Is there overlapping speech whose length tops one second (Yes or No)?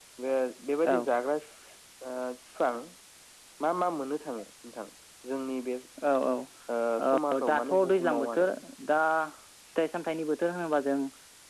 Yes